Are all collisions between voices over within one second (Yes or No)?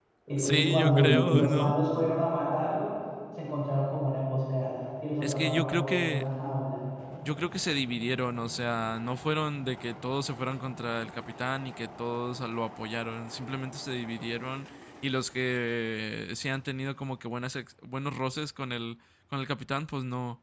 No